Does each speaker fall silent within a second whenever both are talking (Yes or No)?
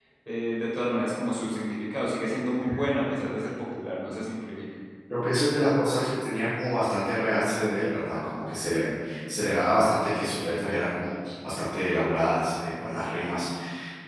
Yes